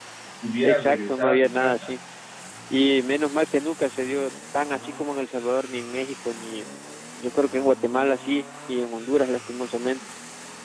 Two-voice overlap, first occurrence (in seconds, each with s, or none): 0.6 s